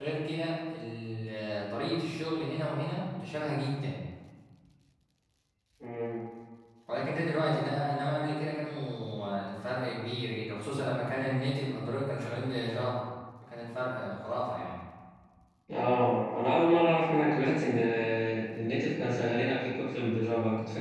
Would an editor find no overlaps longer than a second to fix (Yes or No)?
Yes